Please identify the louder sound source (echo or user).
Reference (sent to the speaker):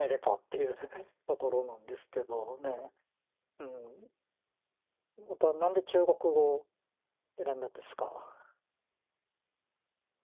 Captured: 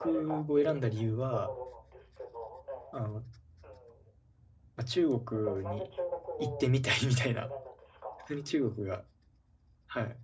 user